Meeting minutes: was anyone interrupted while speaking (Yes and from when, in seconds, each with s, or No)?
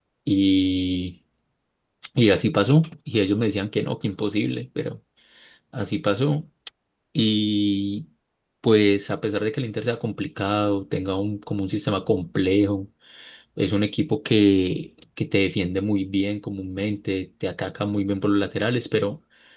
No